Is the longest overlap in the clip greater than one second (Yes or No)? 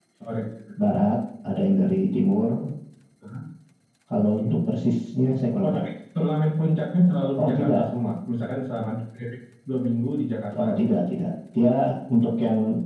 No